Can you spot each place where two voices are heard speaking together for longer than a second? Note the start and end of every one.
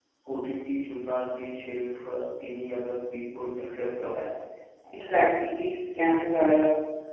none

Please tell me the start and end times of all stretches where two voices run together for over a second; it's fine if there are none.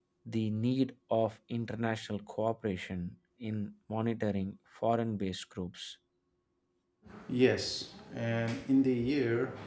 none

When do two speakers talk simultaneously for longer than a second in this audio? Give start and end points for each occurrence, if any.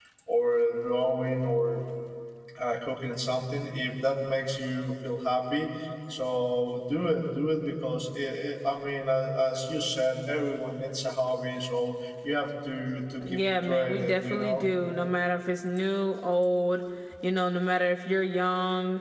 13.3-14.7

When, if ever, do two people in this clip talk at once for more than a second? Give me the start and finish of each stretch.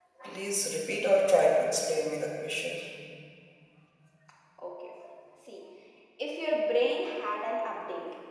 none

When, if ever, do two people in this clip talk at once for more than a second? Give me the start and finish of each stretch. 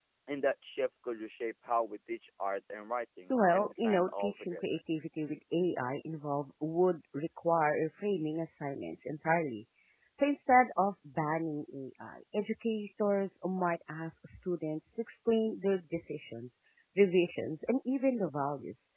3.3-4.6

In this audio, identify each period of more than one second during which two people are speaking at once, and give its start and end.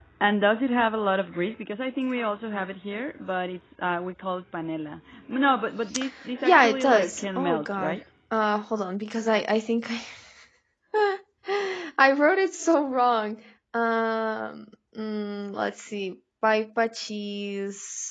6.4-8.0

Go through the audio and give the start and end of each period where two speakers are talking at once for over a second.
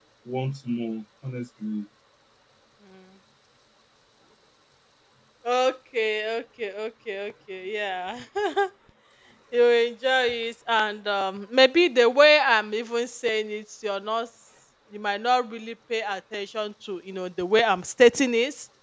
none

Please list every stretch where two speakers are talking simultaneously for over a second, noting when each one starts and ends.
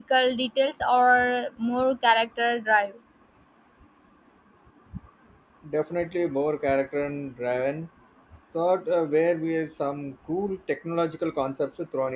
none

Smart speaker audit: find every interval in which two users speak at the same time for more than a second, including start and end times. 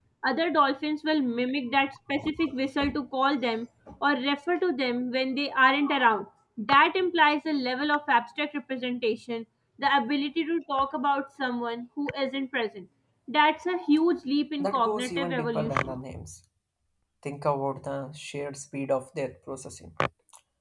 14.6-16.0

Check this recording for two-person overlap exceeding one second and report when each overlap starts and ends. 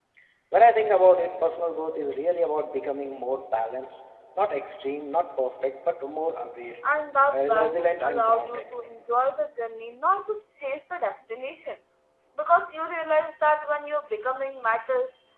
7.3-8.7

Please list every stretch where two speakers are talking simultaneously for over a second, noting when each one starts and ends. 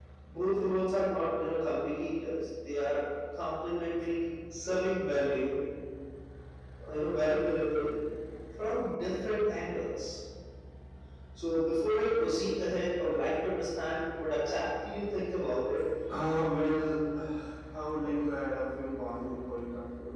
none

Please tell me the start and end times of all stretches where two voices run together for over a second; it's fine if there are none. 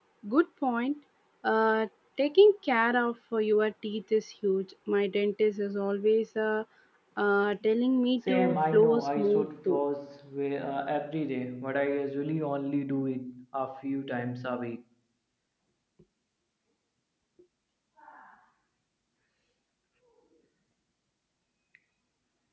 8.3-9.8

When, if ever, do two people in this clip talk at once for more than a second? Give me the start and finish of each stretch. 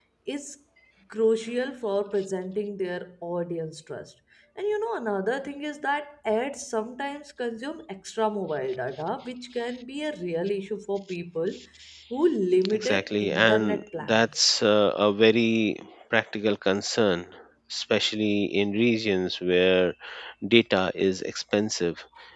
12.7-14.5

